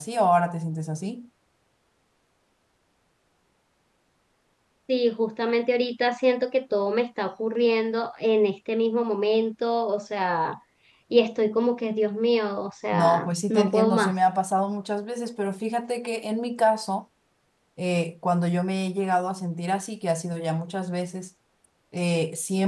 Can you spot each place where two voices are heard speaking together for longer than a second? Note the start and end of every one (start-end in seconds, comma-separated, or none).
12.9-14.2